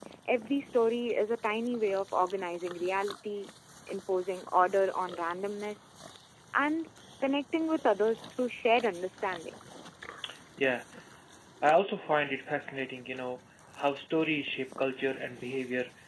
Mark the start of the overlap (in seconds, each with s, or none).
none